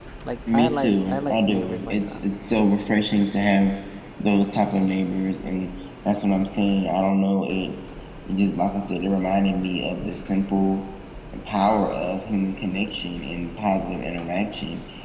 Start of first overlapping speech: 0.5 s

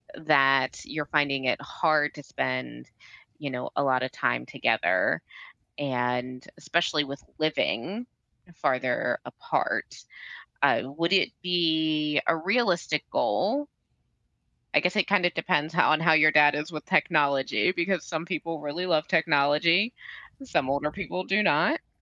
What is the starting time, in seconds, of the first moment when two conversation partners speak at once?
none

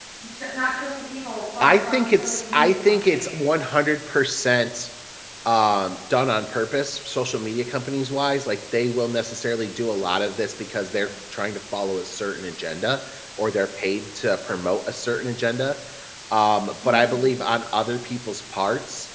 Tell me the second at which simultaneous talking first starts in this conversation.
1.6 s

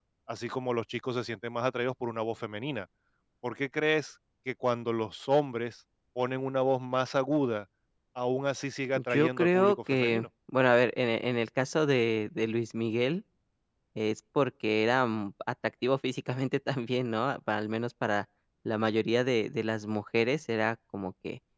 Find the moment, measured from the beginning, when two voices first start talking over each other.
8.9 s

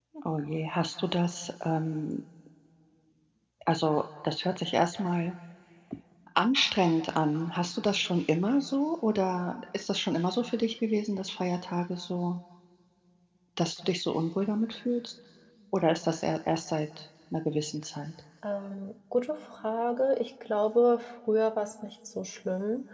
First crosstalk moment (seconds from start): none

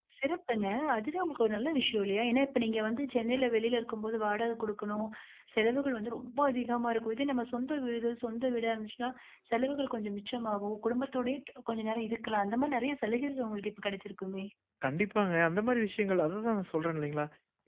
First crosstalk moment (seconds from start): none

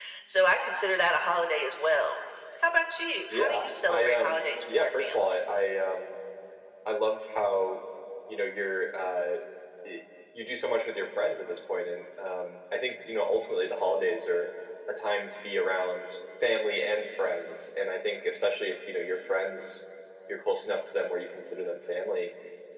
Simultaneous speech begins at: 3.3 s

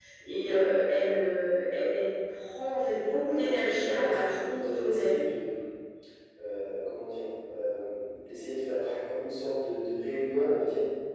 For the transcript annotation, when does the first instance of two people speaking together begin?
3.2 s

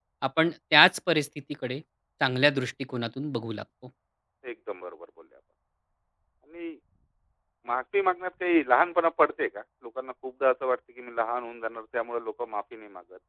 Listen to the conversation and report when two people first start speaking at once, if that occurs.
none

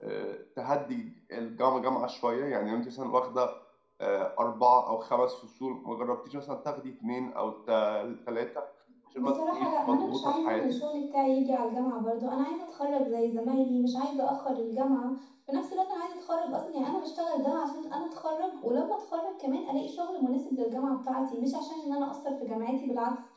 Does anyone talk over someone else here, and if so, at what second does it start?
9.2 s

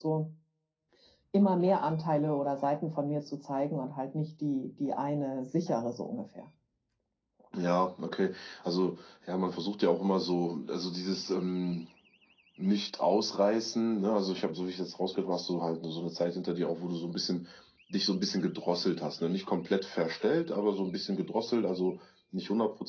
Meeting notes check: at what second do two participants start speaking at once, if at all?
none

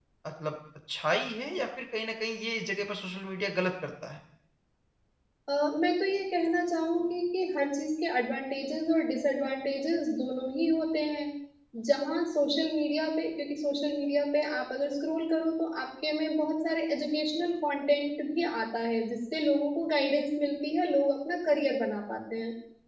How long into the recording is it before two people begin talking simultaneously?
none

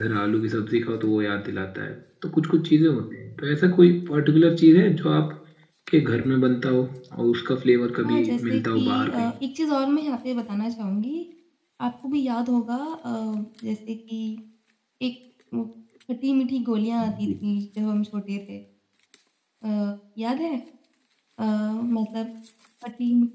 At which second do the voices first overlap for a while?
8.0 s

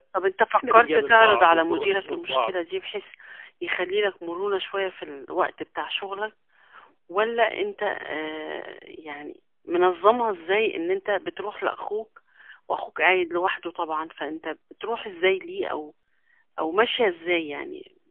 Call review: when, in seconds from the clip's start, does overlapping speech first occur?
0.6 s

